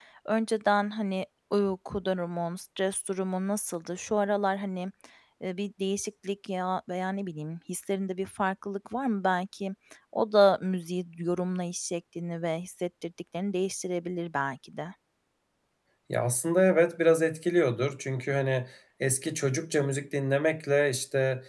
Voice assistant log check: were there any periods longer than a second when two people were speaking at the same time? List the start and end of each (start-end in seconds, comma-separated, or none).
none